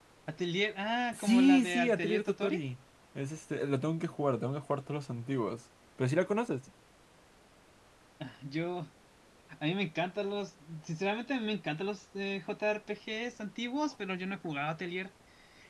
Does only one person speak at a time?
No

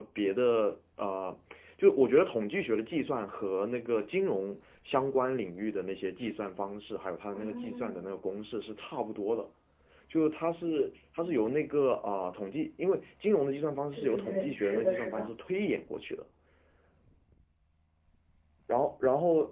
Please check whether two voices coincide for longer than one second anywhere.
Yes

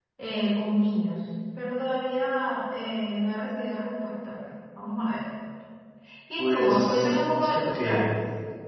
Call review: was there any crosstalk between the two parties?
Yes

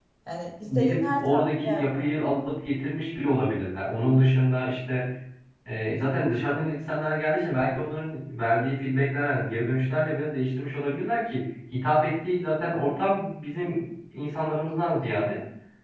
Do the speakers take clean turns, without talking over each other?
No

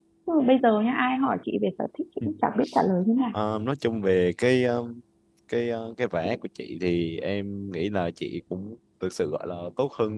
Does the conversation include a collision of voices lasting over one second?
No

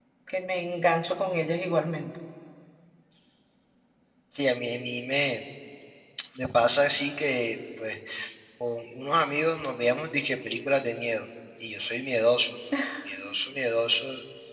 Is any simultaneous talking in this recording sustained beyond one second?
No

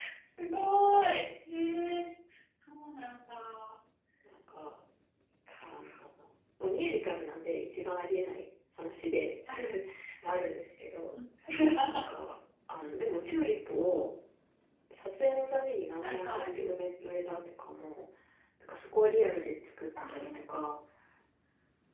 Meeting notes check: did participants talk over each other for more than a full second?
No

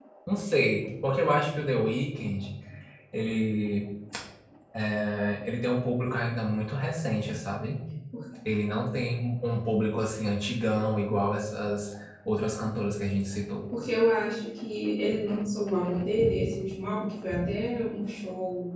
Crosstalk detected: No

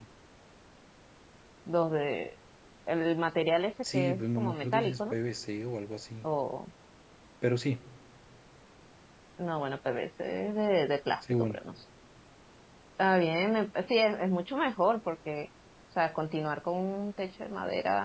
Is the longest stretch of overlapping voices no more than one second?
No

